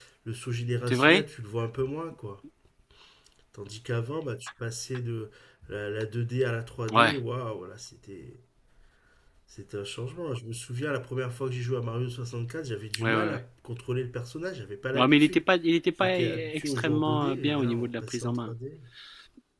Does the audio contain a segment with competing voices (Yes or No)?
Yes